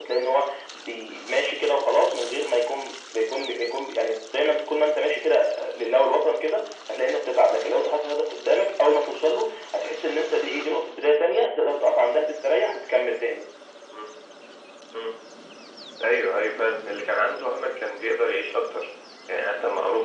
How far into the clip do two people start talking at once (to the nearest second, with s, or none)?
none